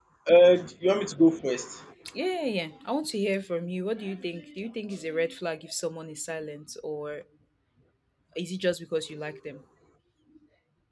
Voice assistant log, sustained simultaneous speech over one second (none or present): none